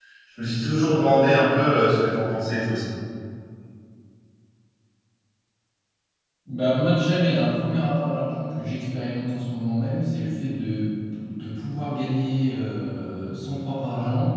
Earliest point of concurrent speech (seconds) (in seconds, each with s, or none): none